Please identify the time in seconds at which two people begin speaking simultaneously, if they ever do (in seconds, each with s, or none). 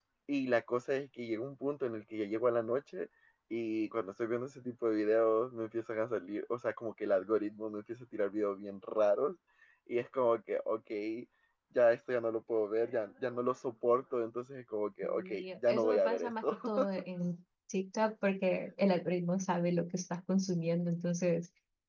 15.0 s